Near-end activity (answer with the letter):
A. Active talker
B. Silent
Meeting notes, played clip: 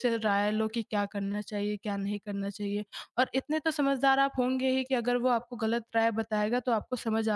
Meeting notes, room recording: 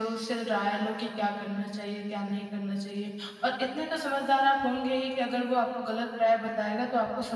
B